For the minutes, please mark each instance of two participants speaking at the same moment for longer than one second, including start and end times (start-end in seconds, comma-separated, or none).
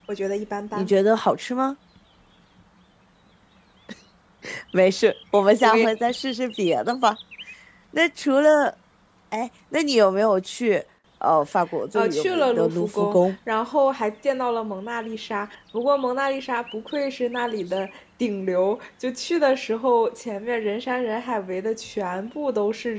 11.9-13.3